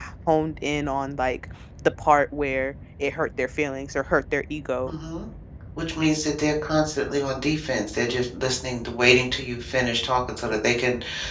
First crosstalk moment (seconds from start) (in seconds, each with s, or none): none